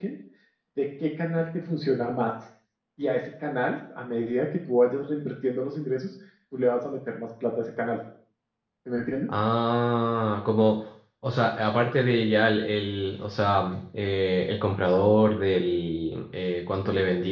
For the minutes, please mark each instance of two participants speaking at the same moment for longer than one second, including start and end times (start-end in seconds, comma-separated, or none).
none